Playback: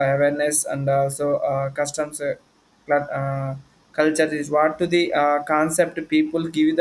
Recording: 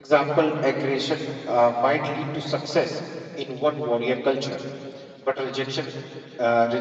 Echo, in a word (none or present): none